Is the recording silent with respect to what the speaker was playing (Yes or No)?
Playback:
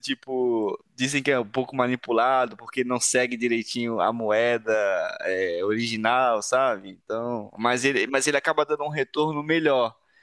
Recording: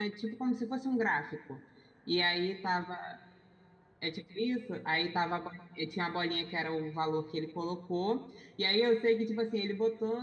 Yes